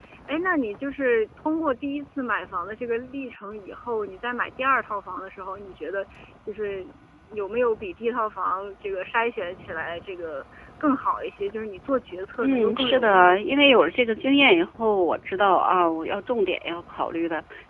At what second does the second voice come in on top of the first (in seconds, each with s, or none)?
12.4 s